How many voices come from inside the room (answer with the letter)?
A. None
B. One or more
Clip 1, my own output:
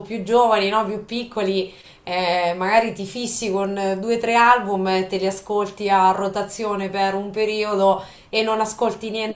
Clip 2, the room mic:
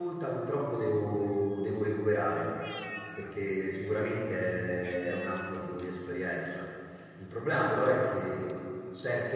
B